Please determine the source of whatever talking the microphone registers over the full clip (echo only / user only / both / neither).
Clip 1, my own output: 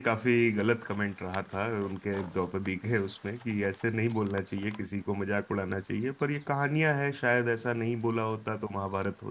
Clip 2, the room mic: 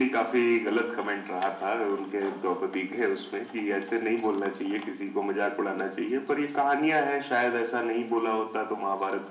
echo only